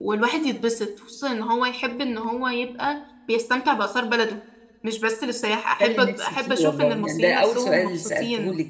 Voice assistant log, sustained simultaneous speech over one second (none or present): present